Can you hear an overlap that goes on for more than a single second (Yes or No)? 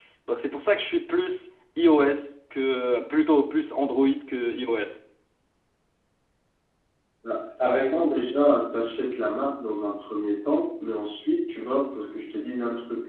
No